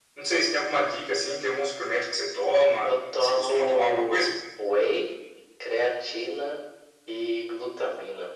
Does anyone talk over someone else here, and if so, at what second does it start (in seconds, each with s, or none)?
2.8 s